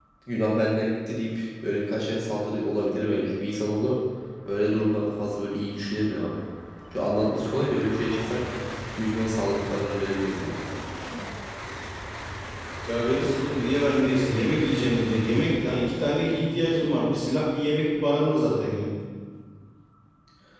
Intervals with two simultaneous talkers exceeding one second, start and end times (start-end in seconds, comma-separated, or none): none